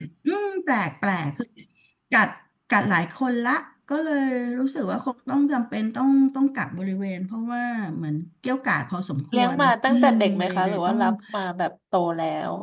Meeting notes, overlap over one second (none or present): present